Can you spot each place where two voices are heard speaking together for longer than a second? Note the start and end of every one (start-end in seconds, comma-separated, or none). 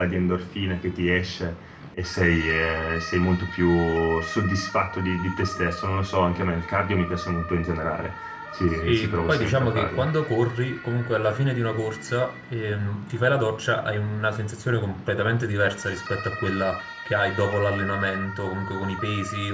8.8-10.0